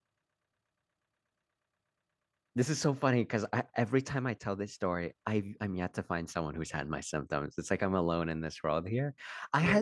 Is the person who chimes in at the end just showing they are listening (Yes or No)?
Yes